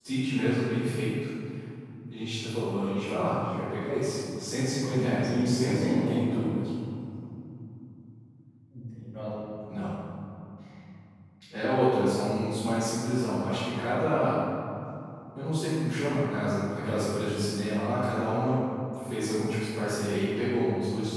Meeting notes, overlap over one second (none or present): present